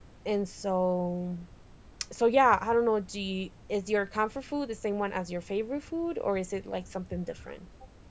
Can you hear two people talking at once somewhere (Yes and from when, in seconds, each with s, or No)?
No